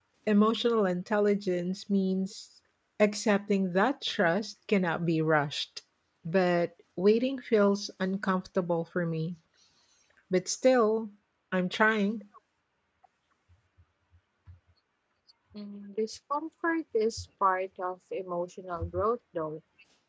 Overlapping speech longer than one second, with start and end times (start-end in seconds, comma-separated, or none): none